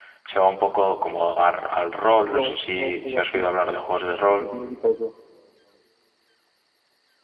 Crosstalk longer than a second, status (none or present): present